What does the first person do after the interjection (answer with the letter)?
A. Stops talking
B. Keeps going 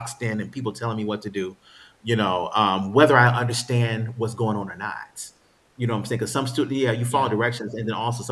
B